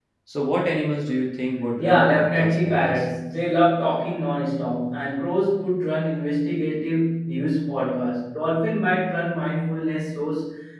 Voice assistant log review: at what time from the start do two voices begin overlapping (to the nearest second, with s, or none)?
2 s